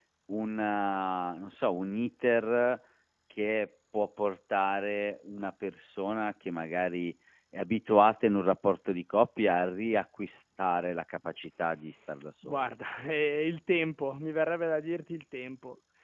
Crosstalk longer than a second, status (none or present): none